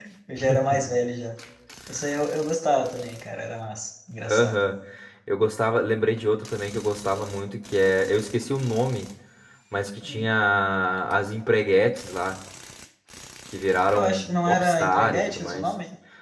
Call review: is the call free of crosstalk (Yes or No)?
No